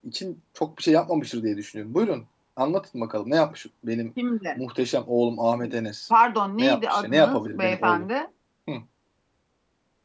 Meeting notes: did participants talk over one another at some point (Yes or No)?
Yes